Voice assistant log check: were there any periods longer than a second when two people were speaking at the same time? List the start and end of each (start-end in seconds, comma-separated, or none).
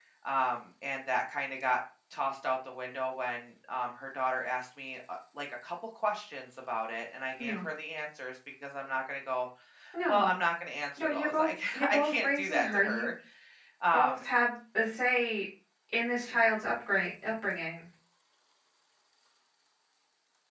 11.0-13.1